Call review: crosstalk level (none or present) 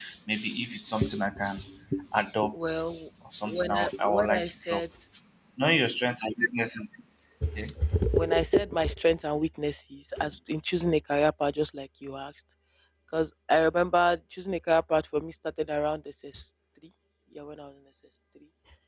present